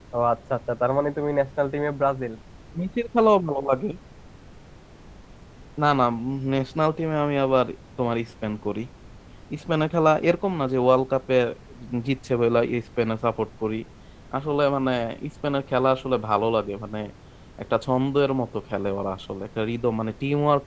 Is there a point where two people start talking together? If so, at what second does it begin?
none

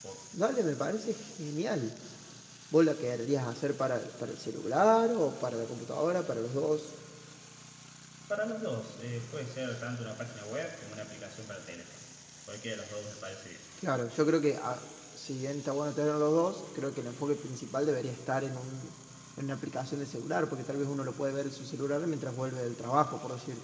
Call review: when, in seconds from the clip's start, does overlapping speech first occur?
none

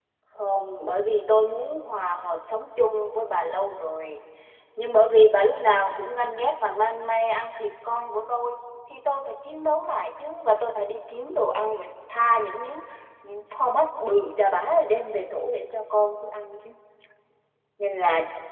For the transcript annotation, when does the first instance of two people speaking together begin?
none

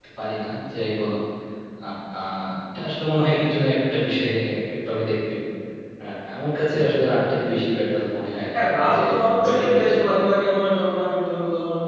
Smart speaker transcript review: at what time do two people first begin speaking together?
8.5 s

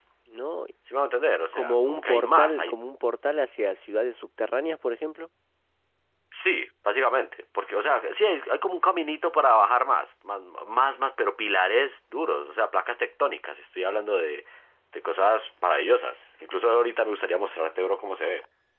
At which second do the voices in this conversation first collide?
1.5 s

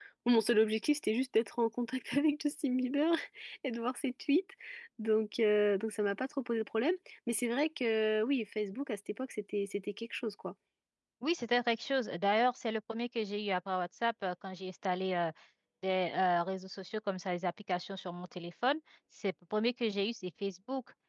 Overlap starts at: none

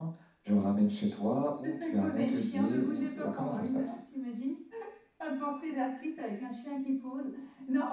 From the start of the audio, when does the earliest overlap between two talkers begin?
1.6 s

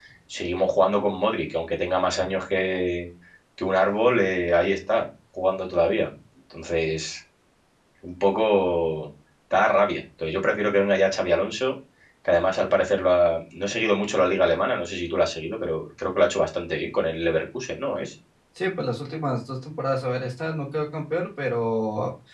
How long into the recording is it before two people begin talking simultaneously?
none

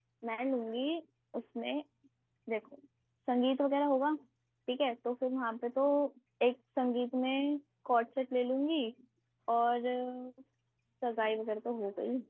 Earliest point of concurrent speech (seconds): none

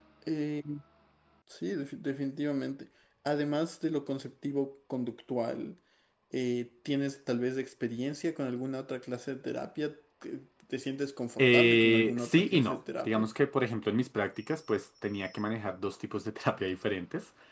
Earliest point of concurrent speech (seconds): 11.4 s

